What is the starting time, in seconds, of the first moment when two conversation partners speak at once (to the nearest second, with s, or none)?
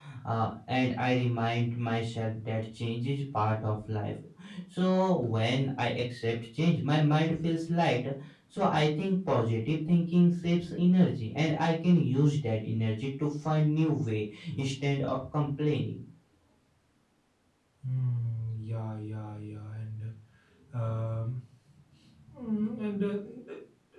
none